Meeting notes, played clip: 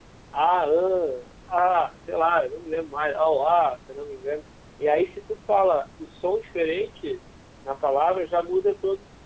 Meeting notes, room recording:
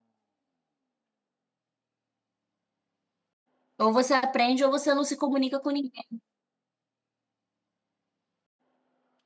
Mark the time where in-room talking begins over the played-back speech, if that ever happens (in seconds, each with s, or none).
3.8 s